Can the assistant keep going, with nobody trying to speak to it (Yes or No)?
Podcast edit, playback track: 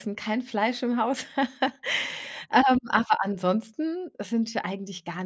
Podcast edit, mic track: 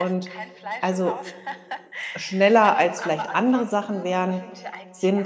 No